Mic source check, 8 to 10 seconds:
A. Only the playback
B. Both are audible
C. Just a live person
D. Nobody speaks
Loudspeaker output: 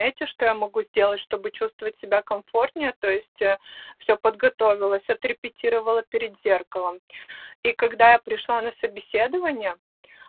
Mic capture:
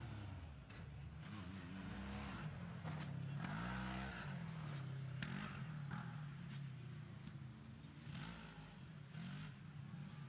D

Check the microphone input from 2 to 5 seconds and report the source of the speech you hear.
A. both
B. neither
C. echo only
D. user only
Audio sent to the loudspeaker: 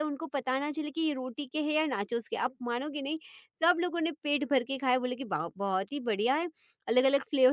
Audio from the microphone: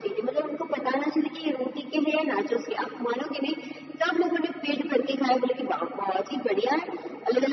C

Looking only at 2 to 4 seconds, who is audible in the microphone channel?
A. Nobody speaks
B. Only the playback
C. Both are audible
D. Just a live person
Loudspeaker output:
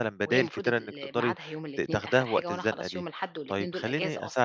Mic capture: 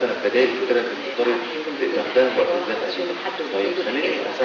B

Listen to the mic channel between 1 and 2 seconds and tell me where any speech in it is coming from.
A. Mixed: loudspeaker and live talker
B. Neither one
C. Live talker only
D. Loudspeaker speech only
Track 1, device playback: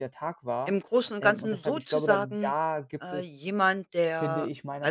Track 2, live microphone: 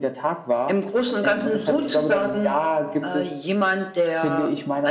D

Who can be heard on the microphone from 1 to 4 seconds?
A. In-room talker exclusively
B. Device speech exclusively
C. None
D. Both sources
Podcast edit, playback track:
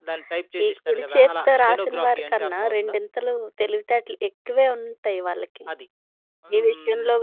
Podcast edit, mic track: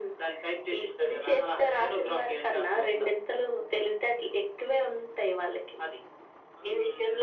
B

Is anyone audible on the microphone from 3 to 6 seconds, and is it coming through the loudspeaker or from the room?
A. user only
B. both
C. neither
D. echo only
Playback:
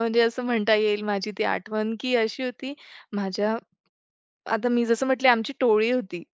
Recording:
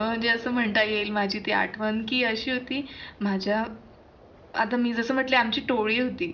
D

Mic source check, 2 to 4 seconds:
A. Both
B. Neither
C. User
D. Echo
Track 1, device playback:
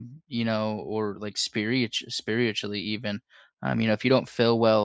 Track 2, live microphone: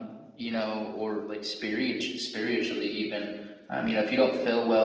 D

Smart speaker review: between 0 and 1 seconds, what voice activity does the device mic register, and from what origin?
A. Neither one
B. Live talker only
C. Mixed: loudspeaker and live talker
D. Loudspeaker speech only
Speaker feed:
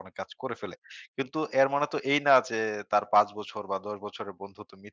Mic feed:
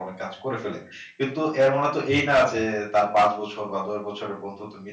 D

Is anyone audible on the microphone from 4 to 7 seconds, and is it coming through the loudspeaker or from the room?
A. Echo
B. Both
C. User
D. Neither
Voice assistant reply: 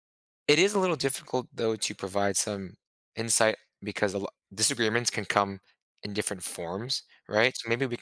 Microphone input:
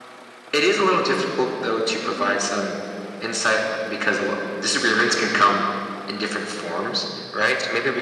A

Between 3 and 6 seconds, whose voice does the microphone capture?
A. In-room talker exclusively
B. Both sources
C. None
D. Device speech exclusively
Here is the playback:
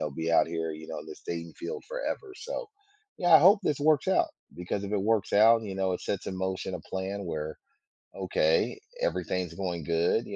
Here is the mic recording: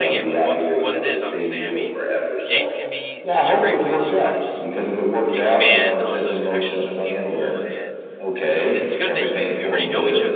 B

